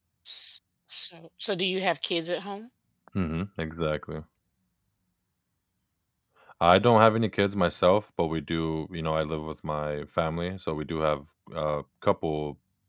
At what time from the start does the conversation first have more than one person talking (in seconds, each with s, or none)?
none